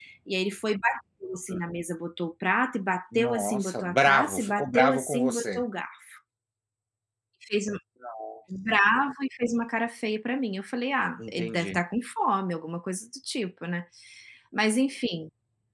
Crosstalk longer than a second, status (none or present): present